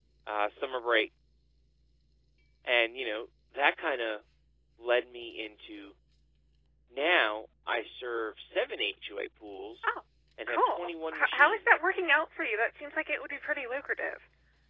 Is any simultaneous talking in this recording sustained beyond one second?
Yes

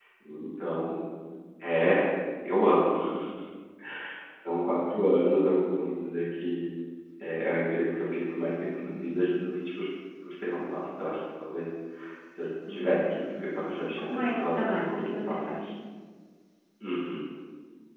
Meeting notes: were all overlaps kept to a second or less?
No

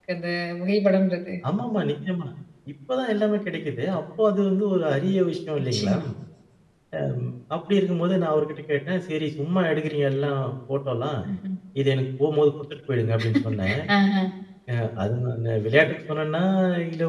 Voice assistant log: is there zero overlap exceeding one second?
Yes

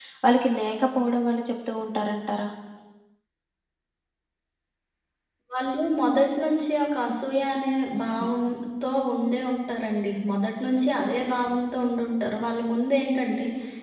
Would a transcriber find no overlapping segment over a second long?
Yes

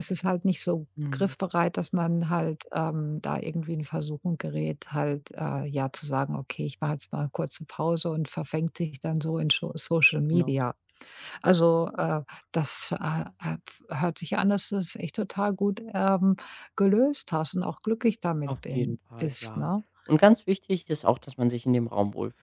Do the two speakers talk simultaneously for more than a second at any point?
Yes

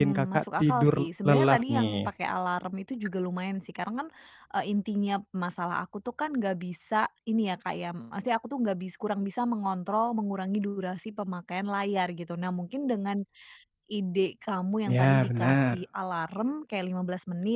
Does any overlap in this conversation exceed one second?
Yes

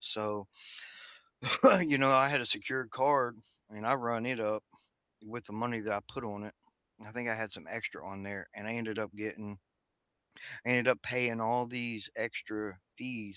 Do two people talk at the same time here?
No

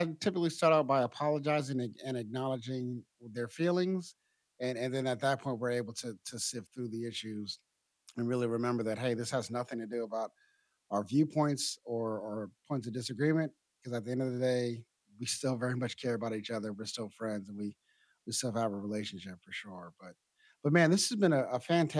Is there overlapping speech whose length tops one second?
No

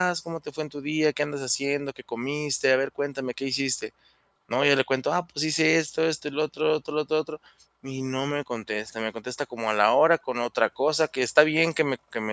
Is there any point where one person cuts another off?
No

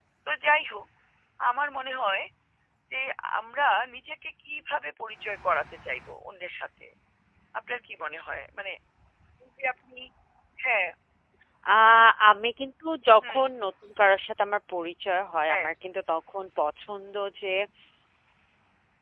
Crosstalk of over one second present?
No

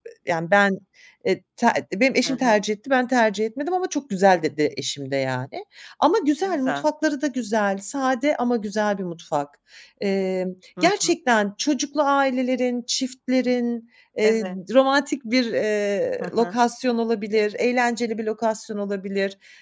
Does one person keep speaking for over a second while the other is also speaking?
No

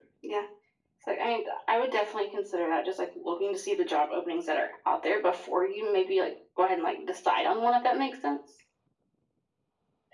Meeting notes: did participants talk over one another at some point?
No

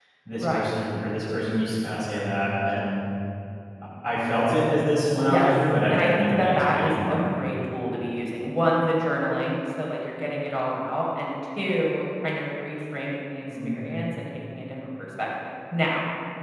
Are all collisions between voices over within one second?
No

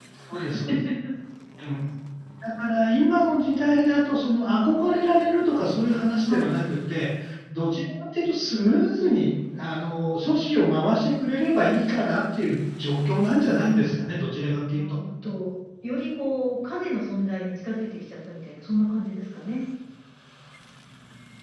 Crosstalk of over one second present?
No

